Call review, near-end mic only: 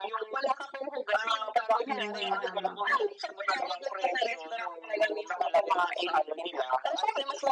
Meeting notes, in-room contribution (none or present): present